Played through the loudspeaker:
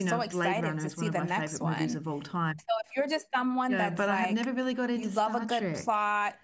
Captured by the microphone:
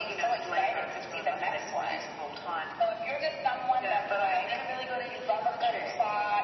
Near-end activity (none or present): none